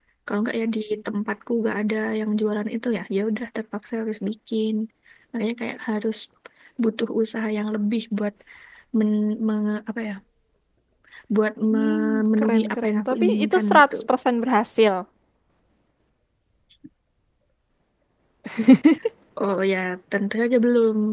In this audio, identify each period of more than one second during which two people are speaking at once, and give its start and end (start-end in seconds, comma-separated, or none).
11.7-14.0